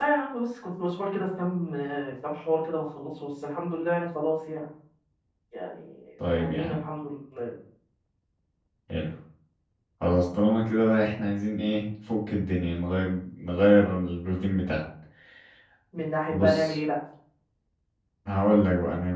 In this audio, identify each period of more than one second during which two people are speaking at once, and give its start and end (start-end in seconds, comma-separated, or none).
none